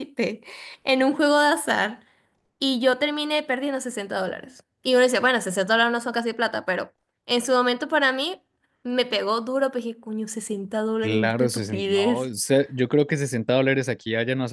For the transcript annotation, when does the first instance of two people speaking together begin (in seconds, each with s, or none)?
11.0 s